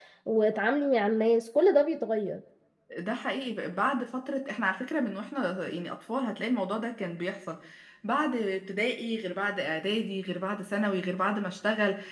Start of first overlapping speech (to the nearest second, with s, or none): none